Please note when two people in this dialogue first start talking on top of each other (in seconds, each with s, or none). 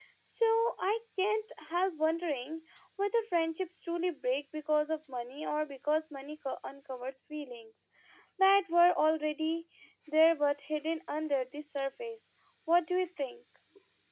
none